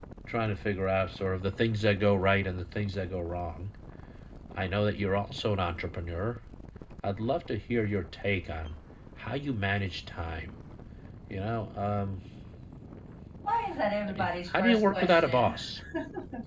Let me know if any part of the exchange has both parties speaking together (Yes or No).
Yes